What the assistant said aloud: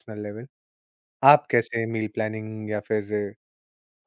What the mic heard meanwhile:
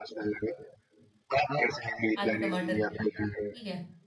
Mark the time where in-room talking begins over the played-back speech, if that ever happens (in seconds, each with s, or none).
2.2 s